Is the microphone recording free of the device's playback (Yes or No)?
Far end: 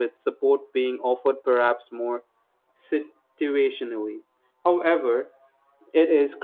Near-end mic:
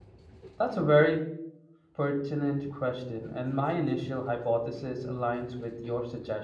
Yes